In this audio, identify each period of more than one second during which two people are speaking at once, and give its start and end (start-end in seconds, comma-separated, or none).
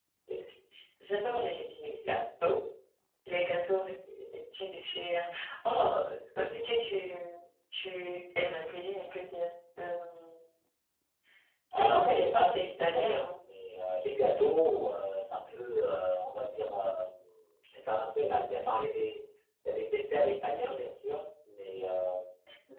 11.8-13.2